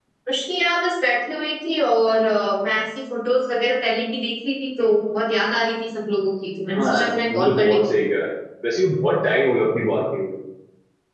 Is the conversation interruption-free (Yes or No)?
No